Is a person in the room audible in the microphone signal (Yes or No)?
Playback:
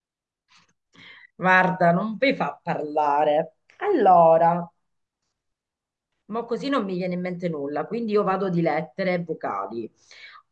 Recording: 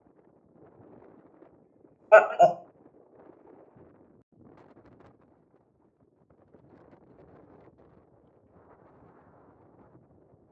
Yes